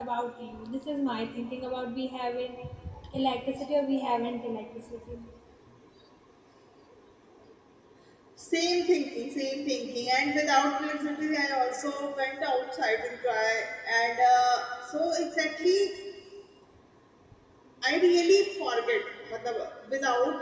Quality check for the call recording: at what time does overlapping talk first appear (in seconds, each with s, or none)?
none